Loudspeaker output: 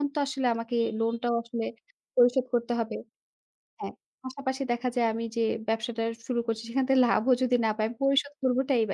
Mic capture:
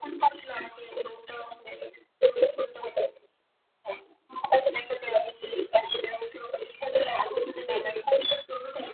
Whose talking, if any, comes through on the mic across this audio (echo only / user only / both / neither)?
echo only